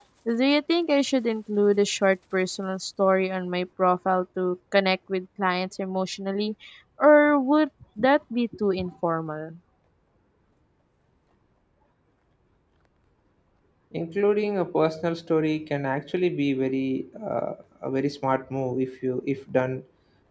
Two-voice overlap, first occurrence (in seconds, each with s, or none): none